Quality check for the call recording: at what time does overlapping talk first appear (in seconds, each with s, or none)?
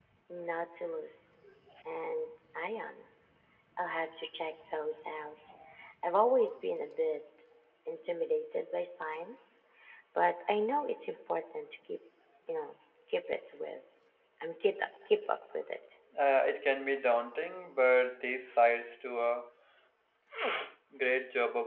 none